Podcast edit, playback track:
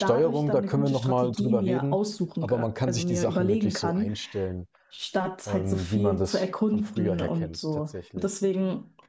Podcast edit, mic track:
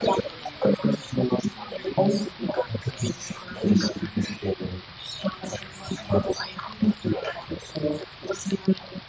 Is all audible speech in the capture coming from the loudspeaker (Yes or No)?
Yes